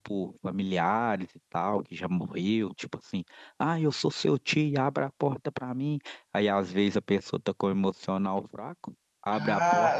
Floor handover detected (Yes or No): Yes